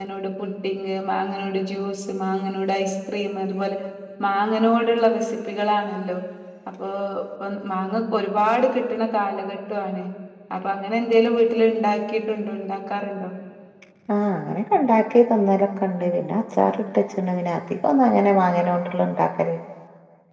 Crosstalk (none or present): none